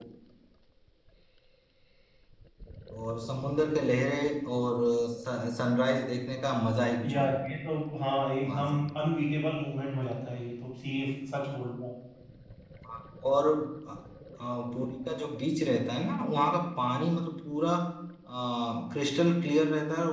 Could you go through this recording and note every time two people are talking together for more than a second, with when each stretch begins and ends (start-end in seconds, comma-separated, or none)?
none